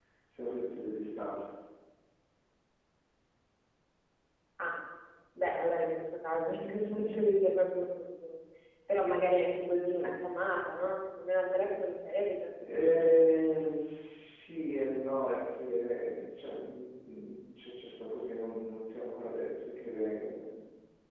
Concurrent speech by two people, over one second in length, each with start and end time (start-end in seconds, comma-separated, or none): none